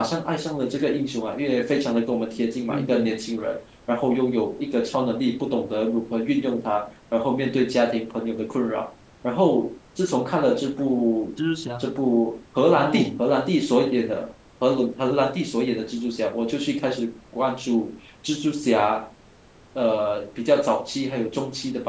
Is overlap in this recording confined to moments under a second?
Yes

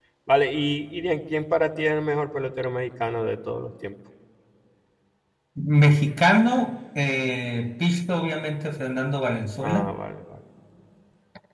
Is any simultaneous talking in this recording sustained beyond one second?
No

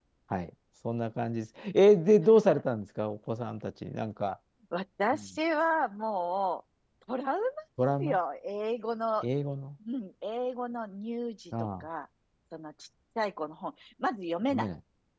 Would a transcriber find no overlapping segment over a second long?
Yes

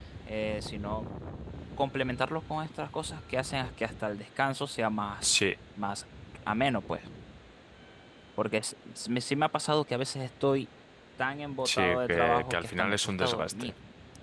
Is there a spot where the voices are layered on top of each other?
Yes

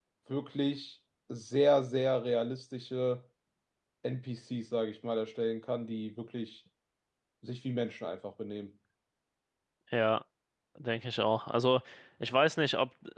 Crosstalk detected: No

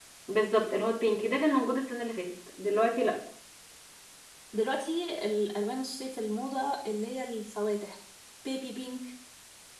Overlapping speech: No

